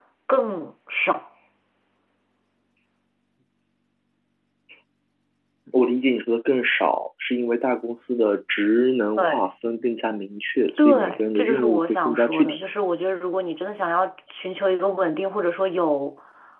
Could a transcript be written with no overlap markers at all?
No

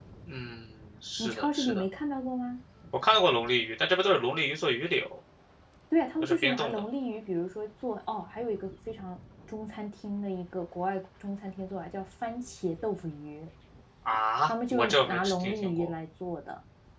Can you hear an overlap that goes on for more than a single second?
Yes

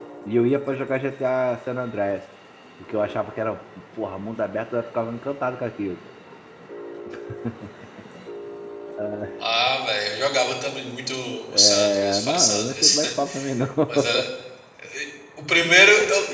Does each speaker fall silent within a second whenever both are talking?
No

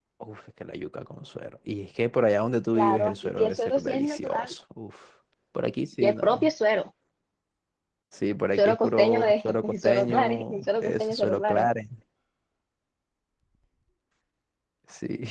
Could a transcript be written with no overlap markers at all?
No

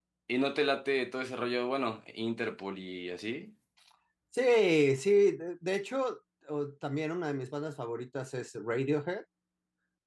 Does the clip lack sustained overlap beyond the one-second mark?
Yes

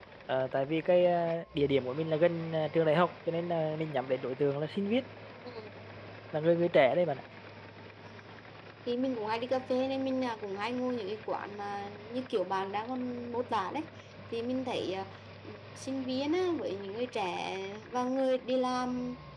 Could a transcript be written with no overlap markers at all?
Yes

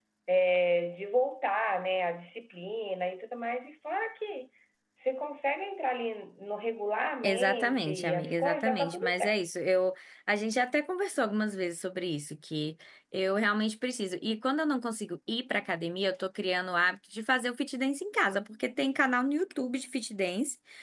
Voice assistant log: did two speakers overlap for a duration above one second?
Yes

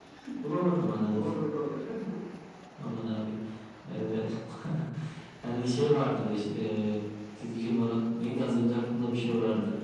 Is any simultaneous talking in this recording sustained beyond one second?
No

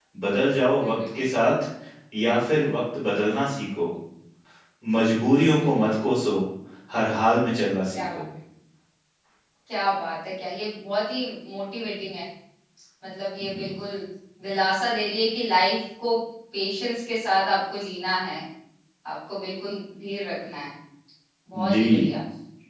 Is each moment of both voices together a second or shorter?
Yes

